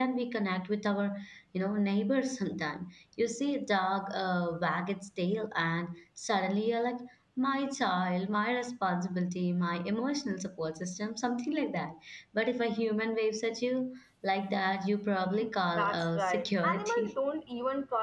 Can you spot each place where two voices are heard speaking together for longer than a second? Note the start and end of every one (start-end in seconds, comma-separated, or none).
15.7-17.1